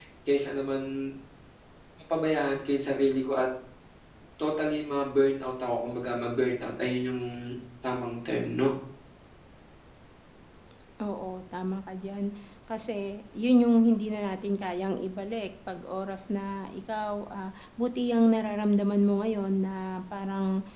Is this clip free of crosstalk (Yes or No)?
Yes